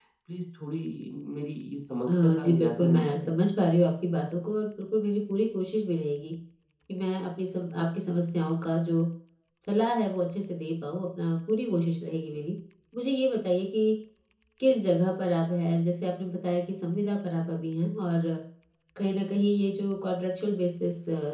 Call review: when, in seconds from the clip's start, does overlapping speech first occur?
2 s

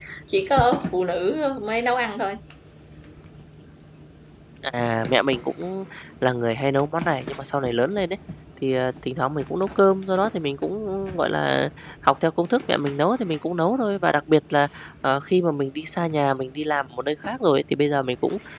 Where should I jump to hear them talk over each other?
none

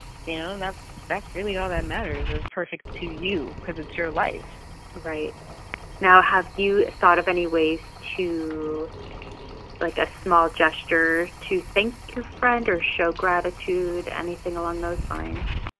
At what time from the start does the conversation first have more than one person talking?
none

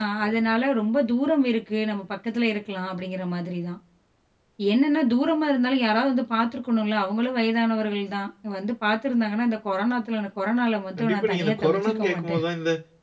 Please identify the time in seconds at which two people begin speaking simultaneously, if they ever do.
11 s

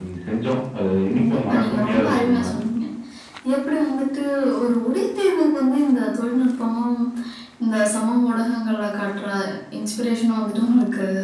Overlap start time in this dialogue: 1 s

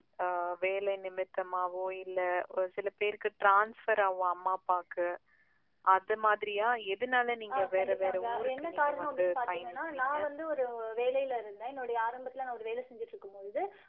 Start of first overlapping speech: 8 s

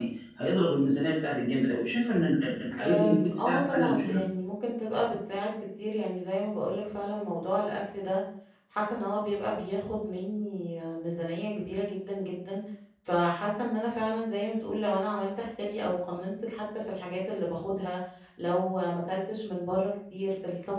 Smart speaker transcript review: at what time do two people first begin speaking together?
3 s

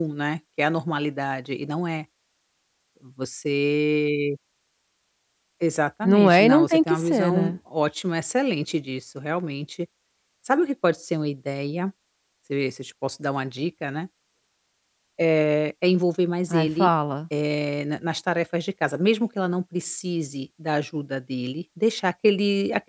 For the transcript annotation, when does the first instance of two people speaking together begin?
6 s

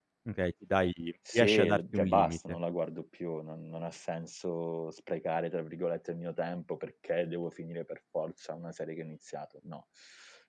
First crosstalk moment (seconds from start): 1 s

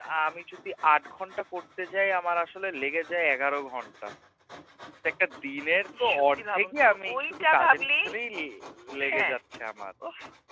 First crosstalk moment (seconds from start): 6 s

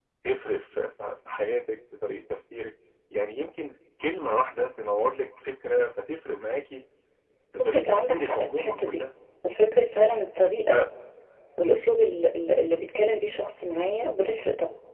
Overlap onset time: 8 s

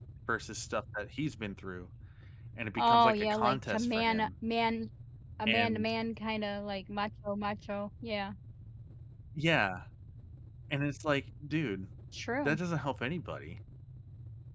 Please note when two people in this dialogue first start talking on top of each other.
3 s

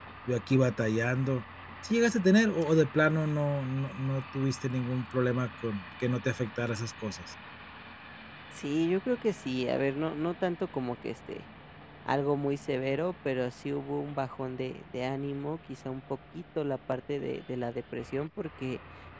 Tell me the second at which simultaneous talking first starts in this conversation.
none

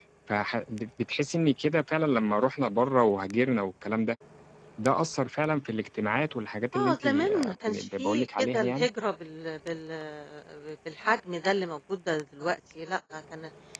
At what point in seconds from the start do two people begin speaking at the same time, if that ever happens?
7 s

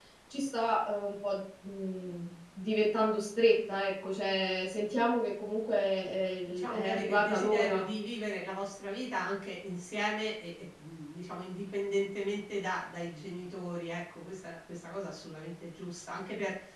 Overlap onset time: 6 s

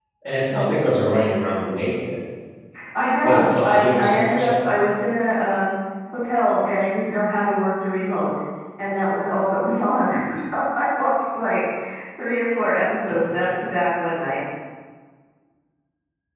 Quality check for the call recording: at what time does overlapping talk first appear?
3 s

